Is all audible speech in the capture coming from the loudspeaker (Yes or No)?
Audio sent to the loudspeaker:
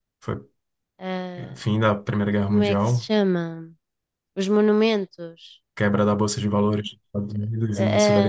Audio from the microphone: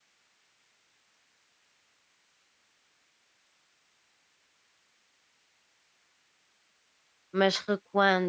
No